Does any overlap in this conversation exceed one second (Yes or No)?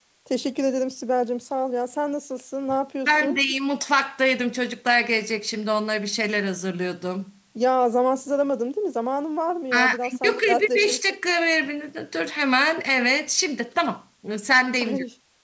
Yes